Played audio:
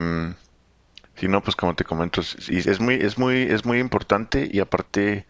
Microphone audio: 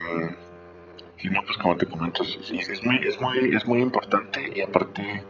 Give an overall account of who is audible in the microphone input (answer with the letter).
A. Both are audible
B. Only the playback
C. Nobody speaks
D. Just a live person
B